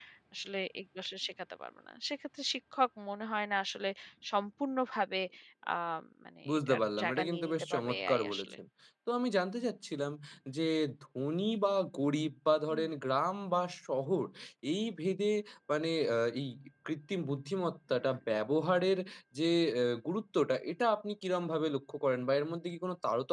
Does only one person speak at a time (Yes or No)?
No